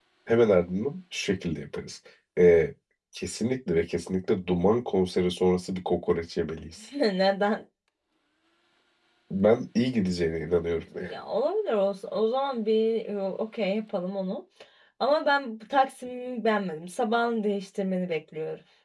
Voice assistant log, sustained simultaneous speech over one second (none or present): none